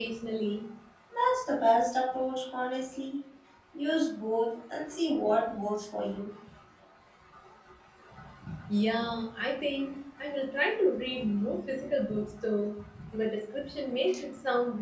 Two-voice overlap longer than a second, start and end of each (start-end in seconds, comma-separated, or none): none